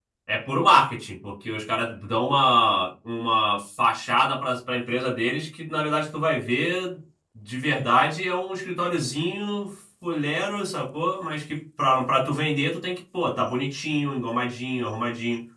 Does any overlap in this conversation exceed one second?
No

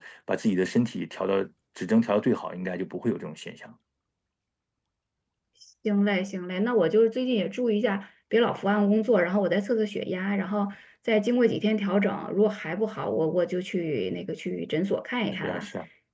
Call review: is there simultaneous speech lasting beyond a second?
No

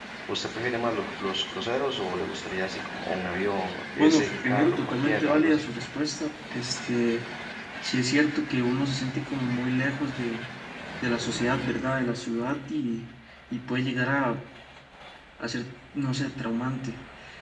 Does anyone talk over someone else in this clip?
Yes, from 4.0 s

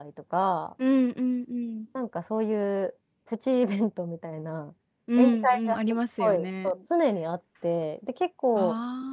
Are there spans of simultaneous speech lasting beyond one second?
Yes, from 5.2 s

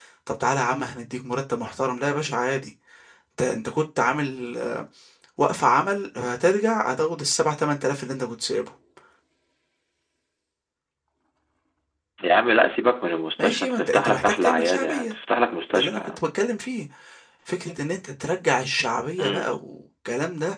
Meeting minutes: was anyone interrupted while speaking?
Yes, from 13.4 s

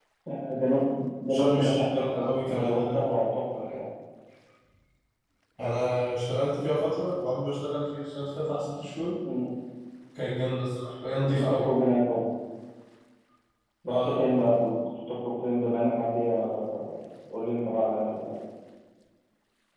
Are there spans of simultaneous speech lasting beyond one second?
Yes, from 1.3 s

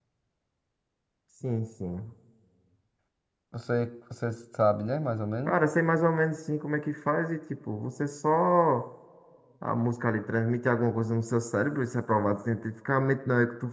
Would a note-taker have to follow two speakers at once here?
No

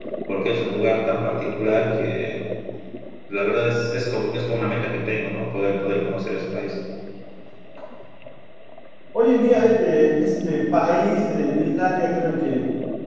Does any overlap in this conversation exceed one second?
No

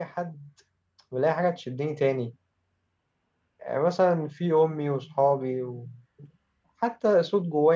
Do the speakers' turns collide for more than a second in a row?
No

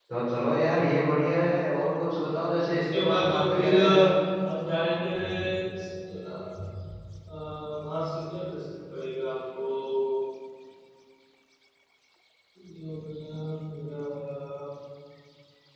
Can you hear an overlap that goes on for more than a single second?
Yes, from 2.7 s

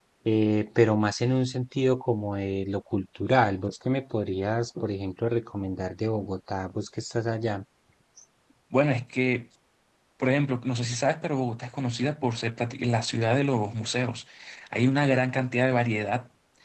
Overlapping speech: No

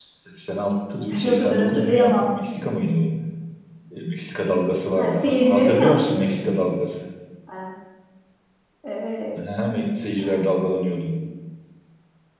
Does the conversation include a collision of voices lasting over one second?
Yes, from 1.1 s

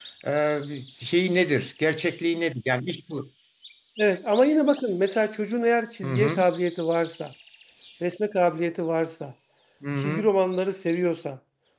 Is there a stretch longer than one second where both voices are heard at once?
No

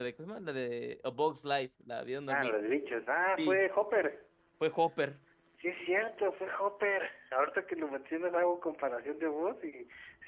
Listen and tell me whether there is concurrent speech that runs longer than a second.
No

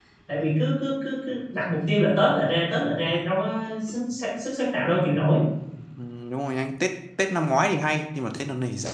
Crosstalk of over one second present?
No

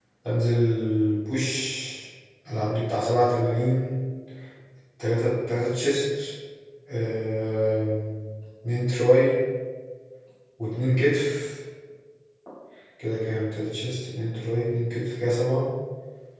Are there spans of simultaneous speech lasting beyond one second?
No

